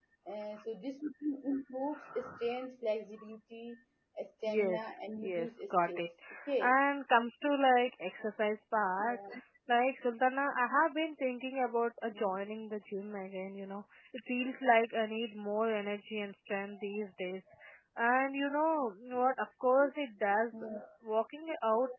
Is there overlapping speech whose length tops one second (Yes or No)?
Yes